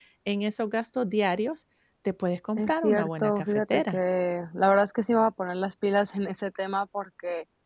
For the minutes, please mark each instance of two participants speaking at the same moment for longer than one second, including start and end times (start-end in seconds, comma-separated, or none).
2.6-4.0